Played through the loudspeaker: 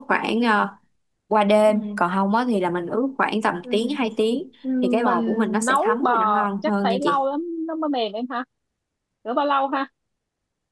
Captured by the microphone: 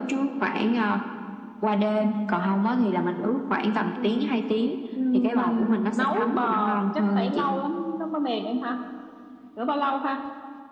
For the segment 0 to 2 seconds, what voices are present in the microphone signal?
echo only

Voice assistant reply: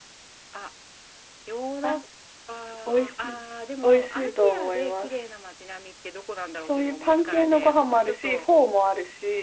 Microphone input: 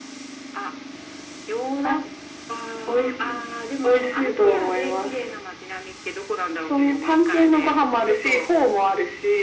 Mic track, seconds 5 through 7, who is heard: echo only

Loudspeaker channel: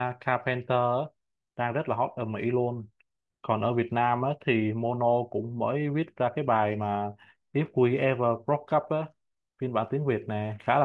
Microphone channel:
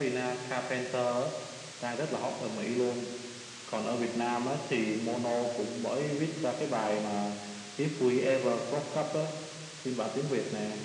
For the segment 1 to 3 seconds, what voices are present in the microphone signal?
echo only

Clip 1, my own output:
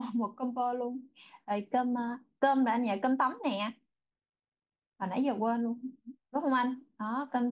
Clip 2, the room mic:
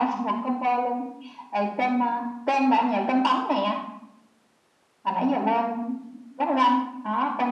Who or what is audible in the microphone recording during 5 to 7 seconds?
echo only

